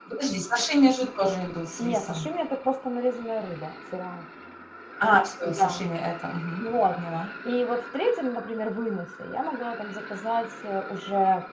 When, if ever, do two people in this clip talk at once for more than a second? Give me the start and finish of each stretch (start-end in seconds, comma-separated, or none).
none